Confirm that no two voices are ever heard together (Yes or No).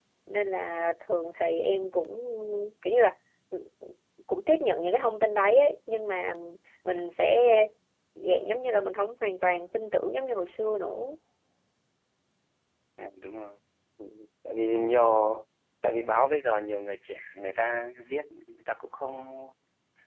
Yes